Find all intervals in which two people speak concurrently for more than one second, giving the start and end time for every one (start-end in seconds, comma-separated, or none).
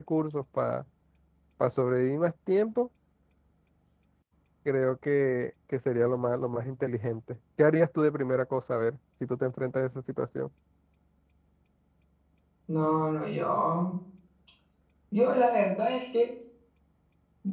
none